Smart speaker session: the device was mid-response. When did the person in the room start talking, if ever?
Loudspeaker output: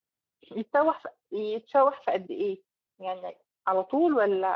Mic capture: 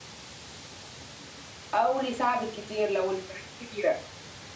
1.7 s

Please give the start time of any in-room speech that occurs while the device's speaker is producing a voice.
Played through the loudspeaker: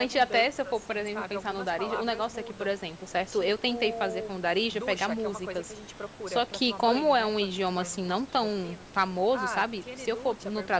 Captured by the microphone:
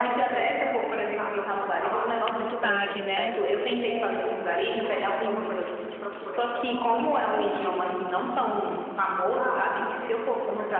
2.2 s

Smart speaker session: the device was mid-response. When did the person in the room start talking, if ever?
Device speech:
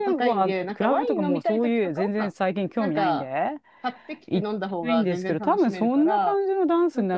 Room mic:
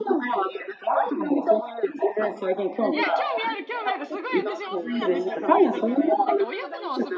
2.9 s

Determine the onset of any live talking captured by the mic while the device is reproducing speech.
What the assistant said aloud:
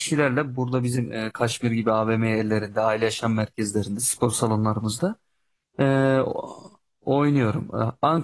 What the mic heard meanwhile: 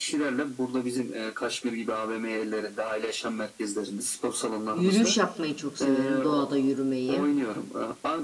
4.7 s

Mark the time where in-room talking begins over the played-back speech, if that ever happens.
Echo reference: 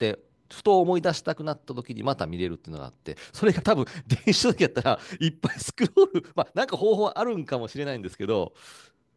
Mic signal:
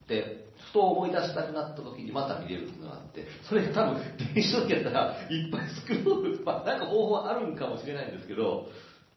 none

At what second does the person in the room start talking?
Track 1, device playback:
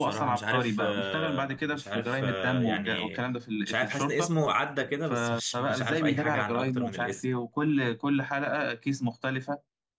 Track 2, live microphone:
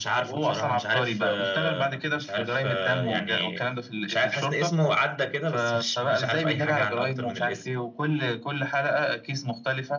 none

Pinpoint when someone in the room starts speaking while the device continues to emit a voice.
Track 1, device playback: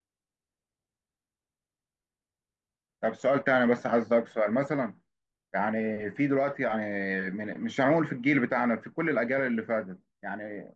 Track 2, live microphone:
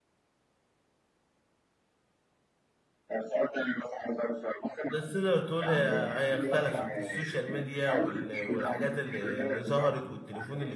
4.8 s

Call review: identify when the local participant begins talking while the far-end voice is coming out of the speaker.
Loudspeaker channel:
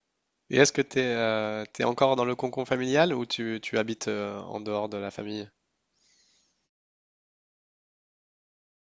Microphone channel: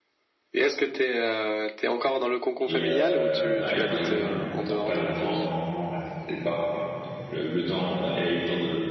2.6 s

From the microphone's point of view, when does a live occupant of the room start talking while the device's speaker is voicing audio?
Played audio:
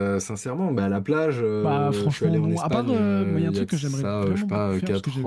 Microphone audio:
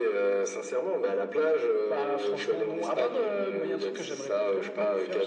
none

